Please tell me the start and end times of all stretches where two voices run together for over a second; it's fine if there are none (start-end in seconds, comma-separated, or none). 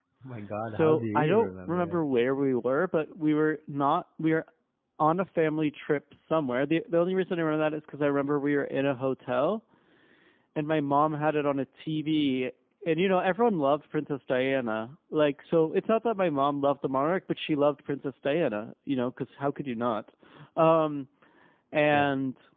0.6-2.0